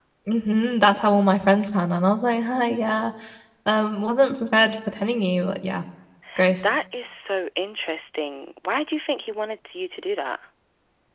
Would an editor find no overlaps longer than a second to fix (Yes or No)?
Yes